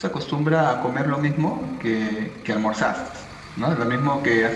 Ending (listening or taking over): taking over